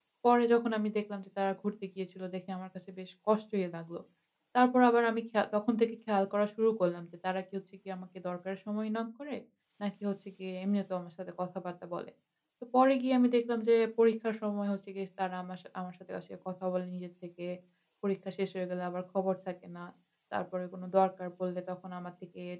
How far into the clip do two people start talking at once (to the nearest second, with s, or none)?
none